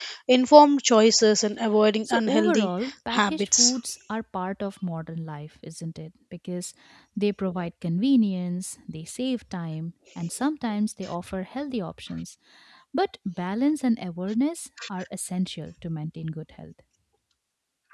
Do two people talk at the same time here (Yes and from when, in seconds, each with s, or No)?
Yes, from 2.0 s